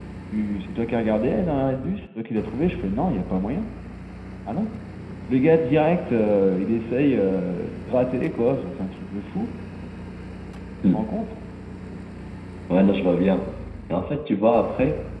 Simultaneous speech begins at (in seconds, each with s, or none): none